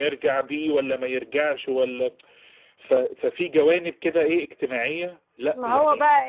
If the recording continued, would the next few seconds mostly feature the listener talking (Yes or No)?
Yes